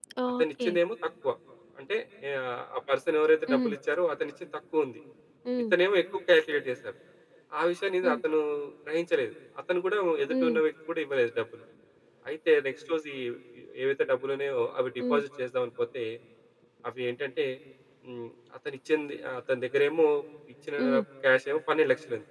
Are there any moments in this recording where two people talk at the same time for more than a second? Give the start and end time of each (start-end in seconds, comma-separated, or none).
none